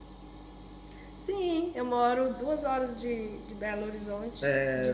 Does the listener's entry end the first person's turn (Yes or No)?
Yes